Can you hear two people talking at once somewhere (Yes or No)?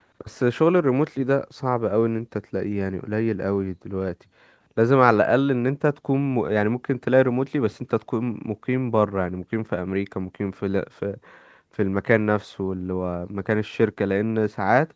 No